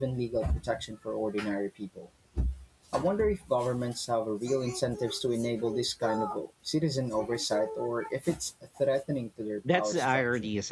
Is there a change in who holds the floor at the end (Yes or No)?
Yes